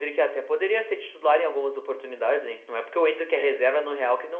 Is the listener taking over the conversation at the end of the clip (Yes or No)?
No